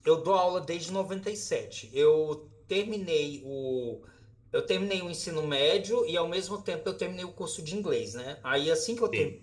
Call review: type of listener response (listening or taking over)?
listening